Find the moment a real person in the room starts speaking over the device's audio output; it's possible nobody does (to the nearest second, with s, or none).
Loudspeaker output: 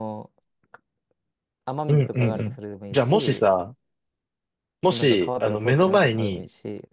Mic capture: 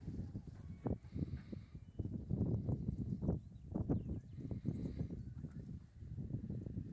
none